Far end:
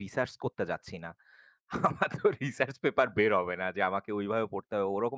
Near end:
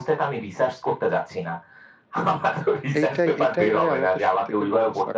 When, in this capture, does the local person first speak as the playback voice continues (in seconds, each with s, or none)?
3.0 s